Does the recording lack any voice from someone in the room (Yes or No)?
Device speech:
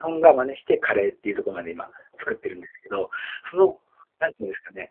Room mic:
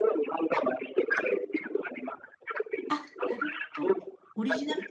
No